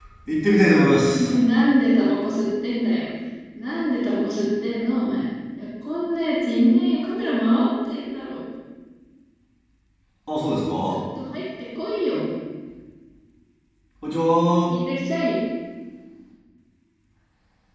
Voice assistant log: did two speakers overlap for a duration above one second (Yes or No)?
No